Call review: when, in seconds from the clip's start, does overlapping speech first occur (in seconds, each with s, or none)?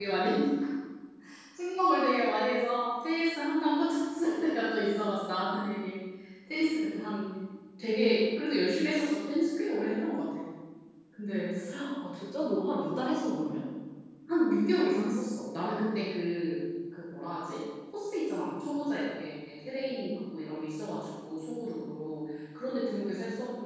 none